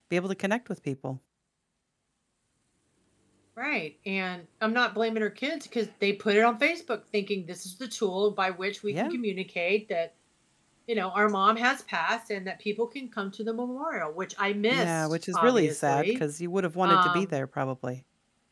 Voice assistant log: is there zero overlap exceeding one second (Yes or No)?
No